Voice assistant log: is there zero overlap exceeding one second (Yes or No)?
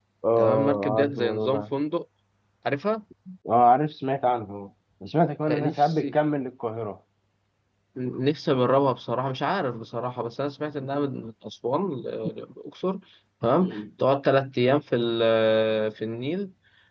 No